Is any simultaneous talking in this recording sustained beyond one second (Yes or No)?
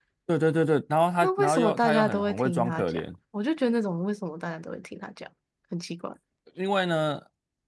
Yes